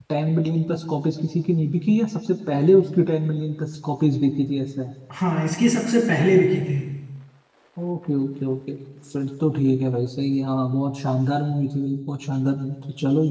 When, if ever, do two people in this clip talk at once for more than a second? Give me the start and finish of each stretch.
none

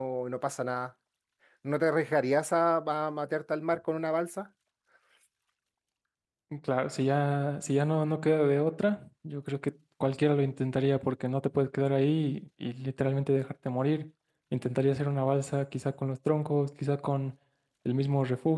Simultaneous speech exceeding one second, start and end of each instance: none

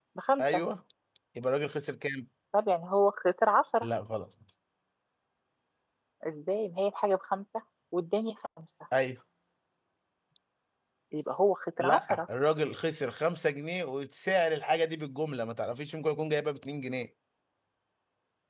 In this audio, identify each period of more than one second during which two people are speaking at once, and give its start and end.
none

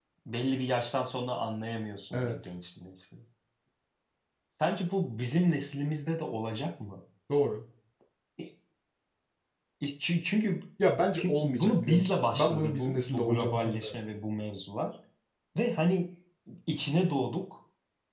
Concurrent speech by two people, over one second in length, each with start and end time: 11.2-13.9

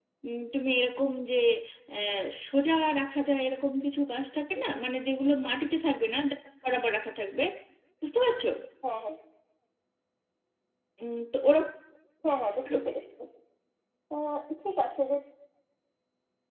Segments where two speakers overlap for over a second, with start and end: none

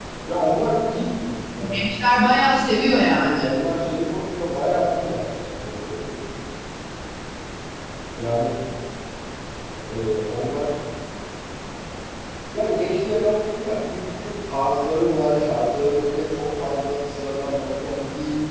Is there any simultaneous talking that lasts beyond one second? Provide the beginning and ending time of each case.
none

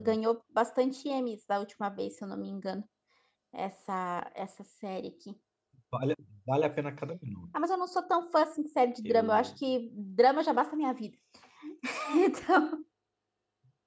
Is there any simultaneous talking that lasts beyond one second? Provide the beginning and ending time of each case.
none

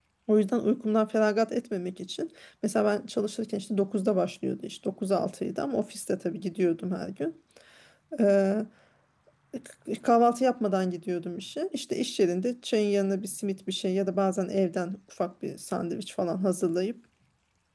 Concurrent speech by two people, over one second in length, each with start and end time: none

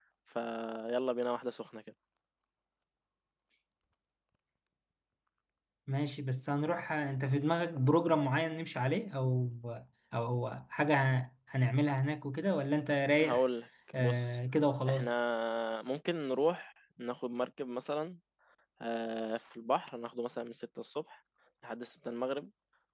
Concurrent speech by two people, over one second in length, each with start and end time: none

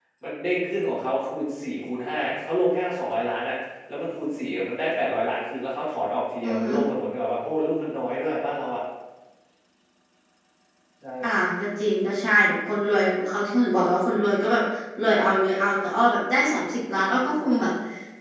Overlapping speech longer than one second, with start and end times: none

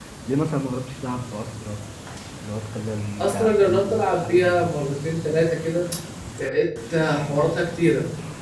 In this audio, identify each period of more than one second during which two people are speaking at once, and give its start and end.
3.2-4.8

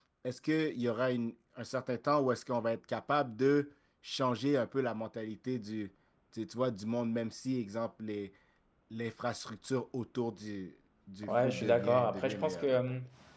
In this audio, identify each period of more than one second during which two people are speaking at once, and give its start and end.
11.3-12.7

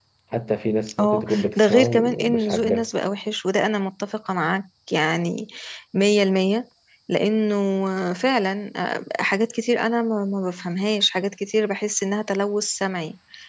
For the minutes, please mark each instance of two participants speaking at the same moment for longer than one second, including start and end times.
1.0-2.9

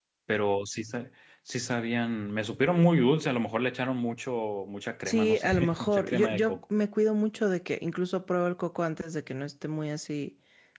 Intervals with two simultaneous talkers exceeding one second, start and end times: 5.0-6.6

